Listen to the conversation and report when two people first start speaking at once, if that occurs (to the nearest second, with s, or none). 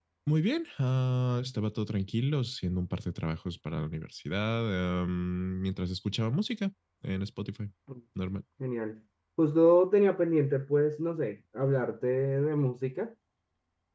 none